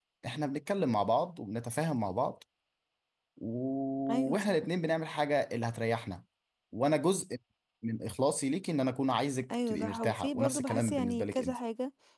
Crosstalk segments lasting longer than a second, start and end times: 9.5-11.6

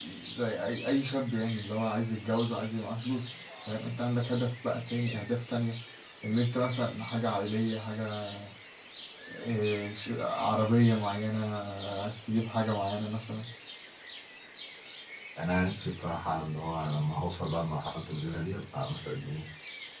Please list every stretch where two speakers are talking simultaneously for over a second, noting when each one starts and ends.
none

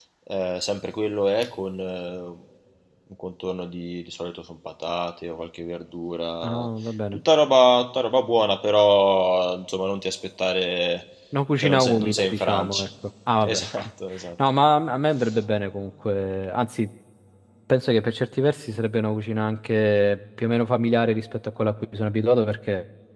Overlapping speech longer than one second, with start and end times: 11.6-12.9

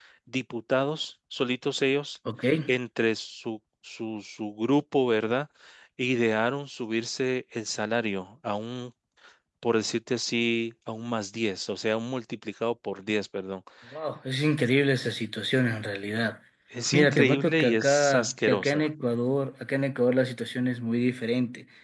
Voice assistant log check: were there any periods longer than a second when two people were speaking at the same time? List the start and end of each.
16.9-18.9

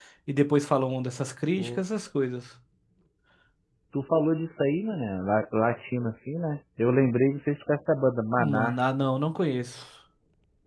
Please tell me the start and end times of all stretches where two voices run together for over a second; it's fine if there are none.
none

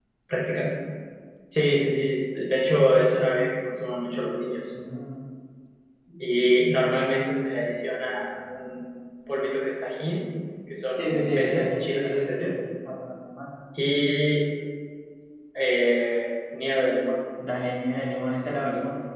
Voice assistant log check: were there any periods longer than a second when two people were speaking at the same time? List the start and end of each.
11.0-12.5

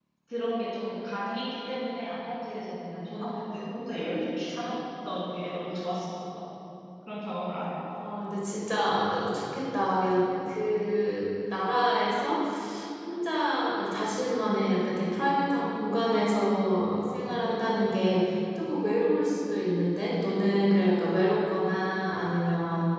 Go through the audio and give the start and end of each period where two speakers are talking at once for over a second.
none

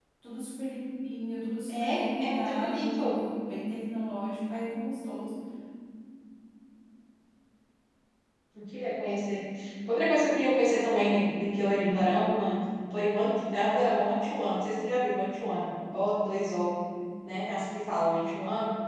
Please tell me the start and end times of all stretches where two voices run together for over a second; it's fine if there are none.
1.7-3.1

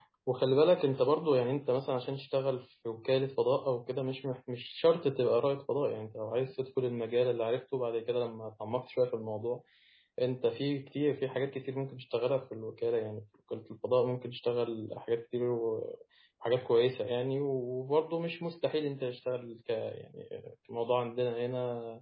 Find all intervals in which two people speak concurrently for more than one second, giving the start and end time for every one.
none

